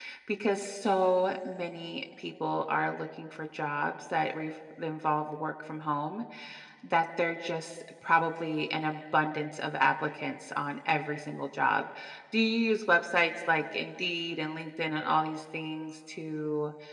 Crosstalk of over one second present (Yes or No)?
No